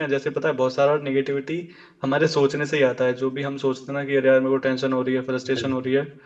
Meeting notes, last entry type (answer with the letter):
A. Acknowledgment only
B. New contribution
A